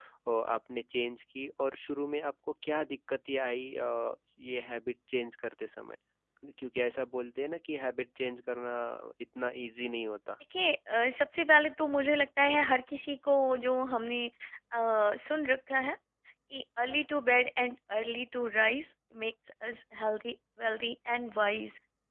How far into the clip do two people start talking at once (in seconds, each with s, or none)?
none